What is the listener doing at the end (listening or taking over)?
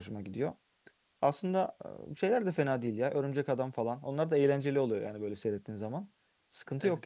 taking over